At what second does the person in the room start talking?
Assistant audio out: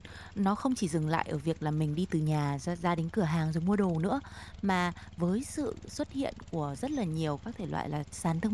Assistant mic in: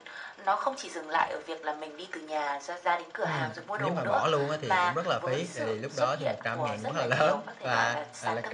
3.2 s

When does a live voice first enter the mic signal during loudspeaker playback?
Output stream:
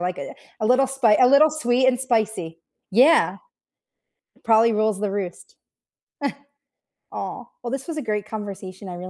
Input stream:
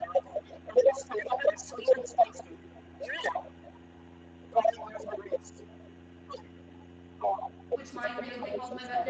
7.7 s

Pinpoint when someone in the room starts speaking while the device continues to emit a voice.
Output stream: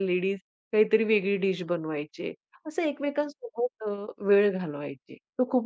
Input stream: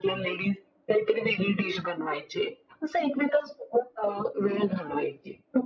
none

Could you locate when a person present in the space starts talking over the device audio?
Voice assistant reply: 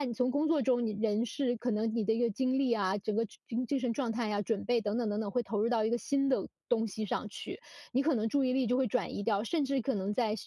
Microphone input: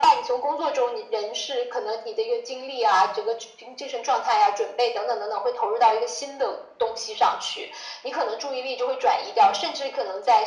none

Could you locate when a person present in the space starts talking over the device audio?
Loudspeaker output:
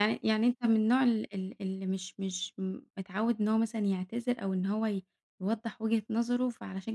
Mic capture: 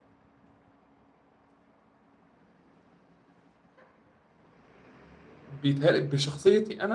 5.4 s

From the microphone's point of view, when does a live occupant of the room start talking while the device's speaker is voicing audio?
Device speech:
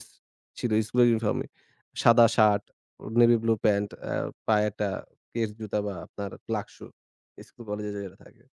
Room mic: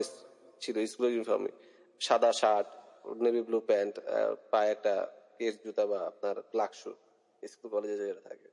none

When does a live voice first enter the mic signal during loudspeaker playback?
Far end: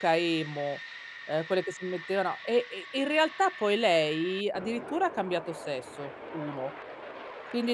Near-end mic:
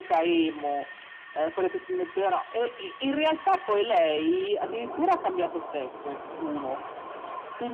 none

